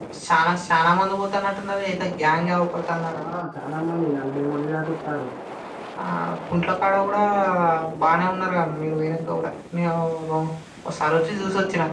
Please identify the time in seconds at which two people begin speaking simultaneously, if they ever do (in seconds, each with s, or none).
none